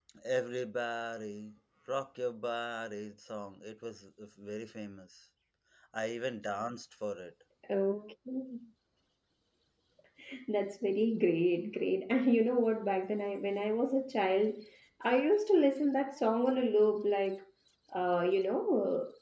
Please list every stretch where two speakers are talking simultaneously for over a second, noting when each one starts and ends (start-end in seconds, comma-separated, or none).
none